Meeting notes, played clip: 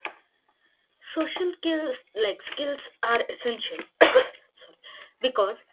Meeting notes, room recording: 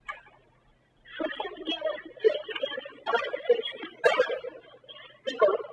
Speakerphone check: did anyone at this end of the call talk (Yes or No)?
No